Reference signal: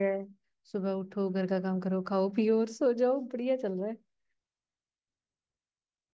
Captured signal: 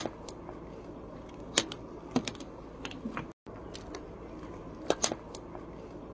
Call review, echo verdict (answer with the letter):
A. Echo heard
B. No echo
B